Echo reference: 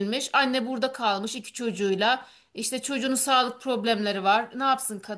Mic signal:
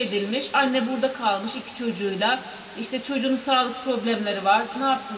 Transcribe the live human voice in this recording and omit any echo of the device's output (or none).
none